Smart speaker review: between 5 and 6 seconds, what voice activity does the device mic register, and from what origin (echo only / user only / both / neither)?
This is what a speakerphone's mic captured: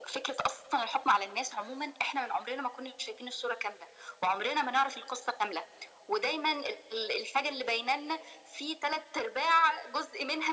echo only